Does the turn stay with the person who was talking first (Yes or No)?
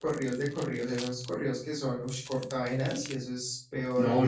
No